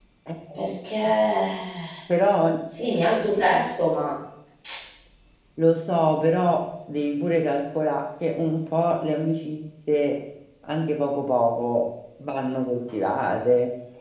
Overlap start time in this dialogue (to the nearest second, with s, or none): none